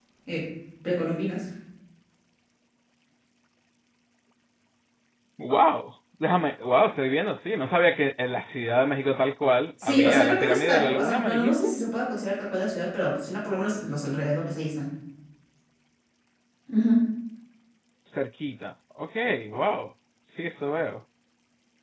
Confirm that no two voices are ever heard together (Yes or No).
No